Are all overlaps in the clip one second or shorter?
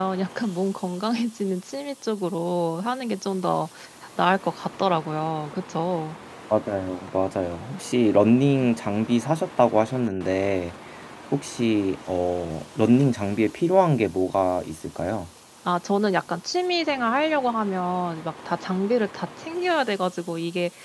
Yes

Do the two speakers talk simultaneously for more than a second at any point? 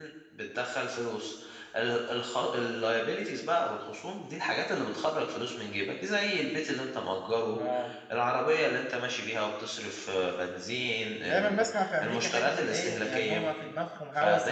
Yes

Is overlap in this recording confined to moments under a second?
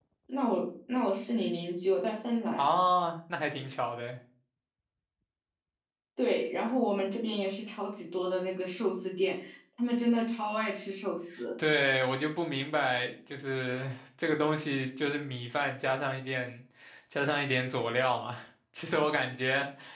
Yes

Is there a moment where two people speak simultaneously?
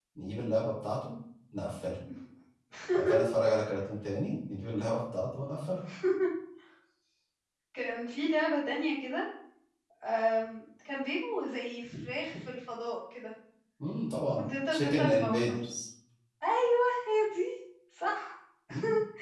Yes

